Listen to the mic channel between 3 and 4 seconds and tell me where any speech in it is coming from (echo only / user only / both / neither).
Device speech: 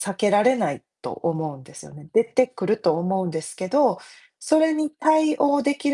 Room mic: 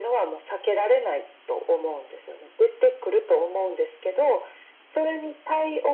echo only